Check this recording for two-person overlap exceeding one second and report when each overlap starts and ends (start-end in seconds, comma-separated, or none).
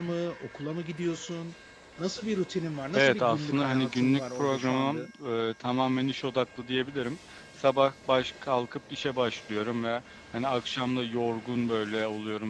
2.9-5.1